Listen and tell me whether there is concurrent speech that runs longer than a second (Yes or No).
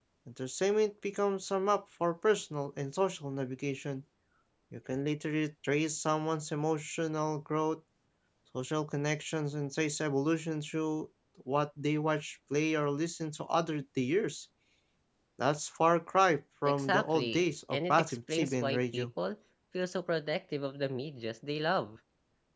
Yes